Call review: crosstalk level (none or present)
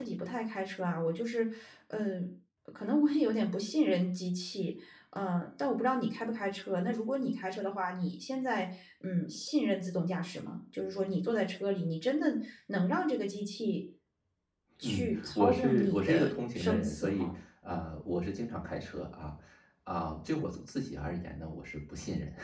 present